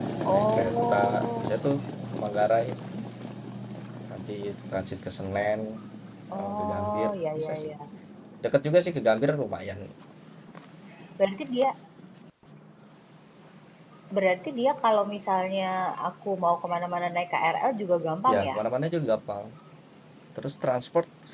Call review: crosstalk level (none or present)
present